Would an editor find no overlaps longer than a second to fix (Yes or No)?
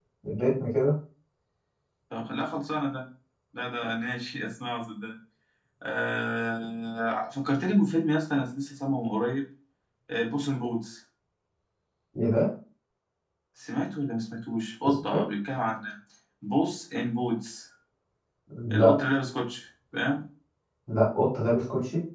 Yes